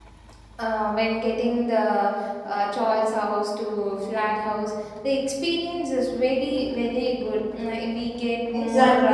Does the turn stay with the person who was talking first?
No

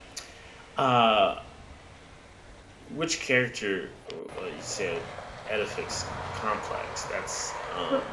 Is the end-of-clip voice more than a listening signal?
Yes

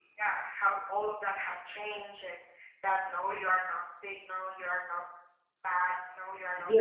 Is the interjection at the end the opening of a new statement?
Yes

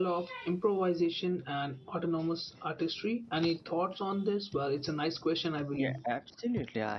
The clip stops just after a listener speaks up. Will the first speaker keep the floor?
No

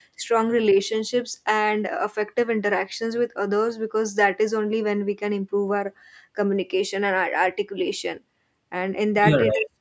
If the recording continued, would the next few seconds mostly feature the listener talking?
No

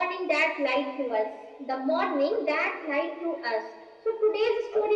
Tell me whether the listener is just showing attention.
Yes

